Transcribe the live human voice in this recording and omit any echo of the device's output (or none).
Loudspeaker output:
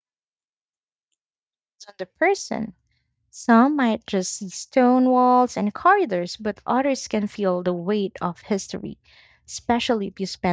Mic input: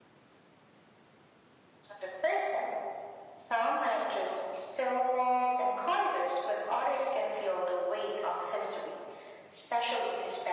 none